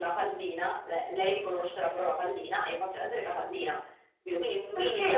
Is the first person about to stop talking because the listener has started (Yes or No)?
Yes